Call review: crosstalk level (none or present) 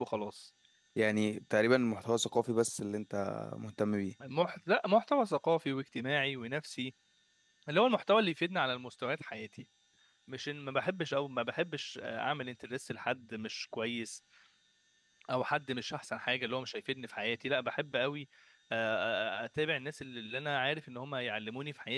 none